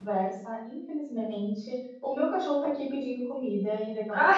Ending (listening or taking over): listening